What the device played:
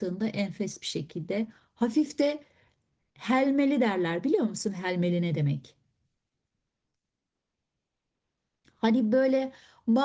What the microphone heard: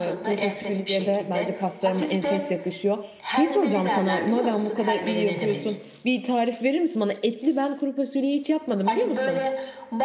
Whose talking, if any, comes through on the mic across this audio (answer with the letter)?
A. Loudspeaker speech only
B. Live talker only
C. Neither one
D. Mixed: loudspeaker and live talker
D